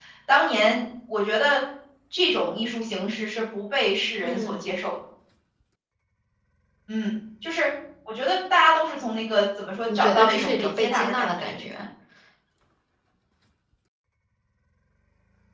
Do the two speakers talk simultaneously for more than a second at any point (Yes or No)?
Yes